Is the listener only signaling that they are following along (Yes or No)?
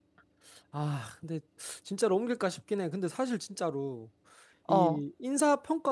Yes